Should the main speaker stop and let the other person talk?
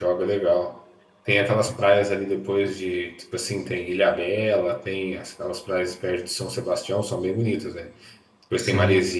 No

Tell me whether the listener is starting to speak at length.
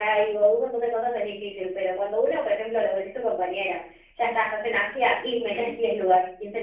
No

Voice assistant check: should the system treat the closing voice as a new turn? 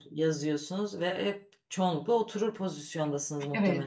Yes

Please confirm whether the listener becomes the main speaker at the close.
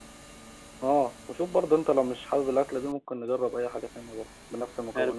Yes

